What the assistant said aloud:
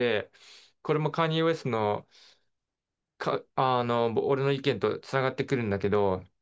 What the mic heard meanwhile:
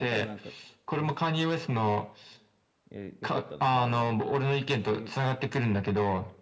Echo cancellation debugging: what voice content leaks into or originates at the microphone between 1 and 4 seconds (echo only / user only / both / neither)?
both